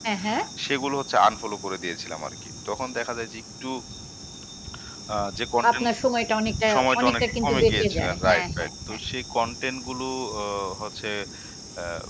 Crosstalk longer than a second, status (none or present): present